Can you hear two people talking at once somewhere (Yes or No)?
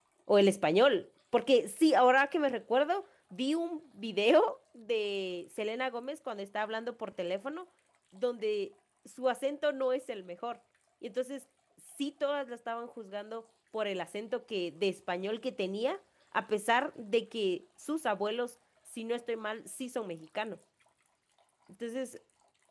No